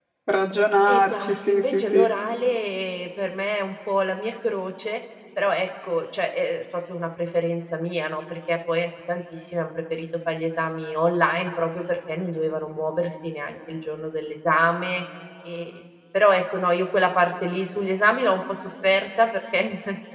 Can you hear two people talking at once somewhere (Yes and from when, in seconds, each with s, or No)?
Yes, from 0.9 s